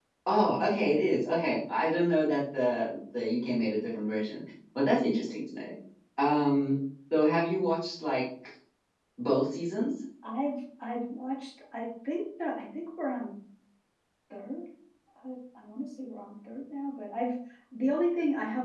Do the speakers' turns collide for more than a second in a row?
No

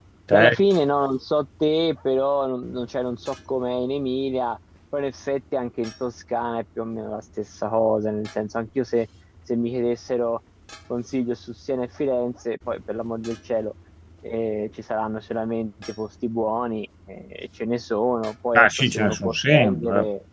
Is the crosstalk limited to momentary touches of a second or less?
No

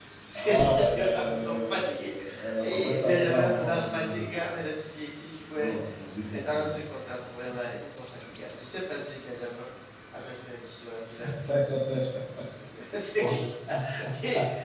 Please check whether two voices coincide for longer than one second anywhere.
Yes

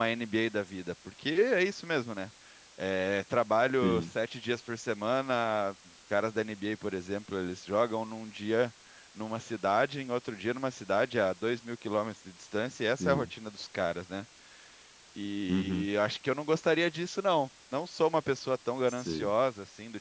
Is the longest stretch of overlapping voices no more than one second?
Yes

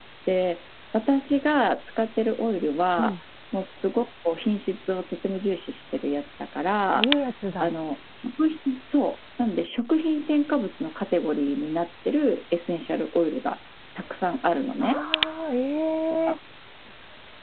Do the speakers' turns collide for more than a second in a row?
No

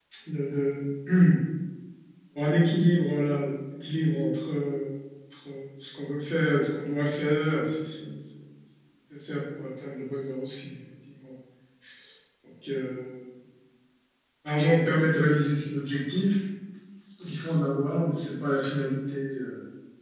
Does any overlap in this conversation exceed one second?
No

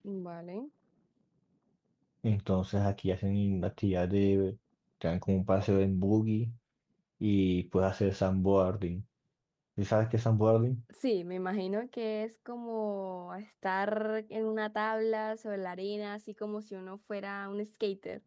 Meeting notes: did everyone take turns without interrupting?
Yes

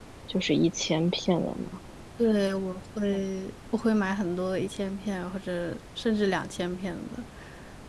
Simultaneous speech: No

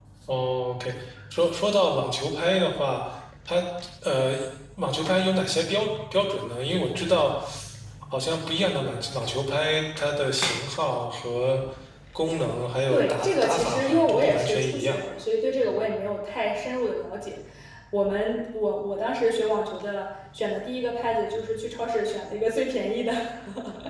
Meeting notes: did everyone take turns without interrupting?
No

